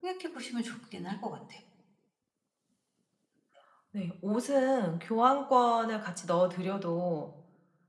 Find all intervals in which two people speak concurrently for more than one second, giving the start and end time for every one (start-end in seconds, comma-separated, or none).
none